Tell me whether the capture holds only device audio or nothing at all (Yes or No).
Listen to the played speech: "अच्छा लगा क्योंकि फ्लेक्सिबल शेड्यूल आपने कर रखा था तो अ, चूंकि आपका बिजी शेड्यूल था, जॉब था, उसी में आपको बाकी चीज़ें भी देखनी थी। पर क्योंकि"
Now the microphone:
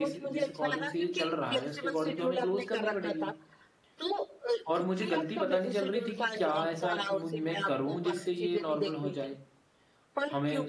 No